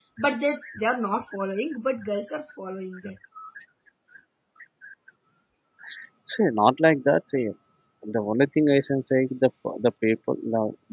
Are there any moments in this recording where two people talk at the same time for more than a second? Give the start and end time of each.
none

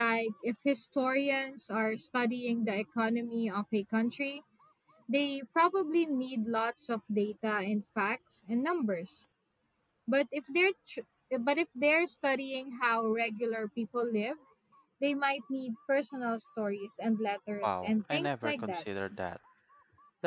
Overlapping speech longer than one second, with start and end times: 17.6-18.8

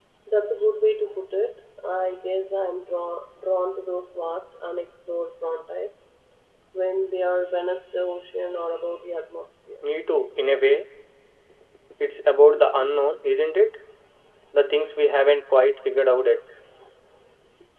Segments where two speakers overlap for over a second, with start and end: none

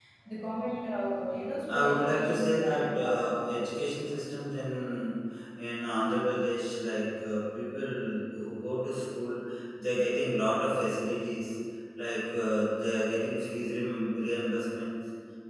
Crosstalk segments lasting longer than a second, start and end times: 1.6-3.5

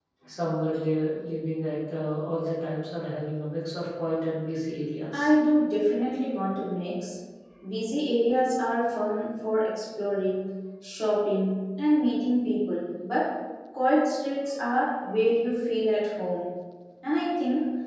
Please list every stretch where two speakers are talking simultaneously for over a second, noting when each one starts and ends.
none

